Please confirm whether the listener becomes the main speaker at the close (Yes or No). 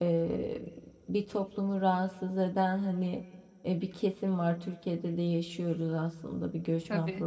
No